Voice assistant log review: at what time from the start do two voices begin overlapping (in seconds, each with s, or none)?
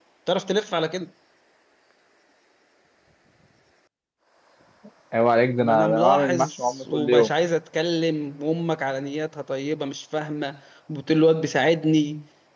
5.6 s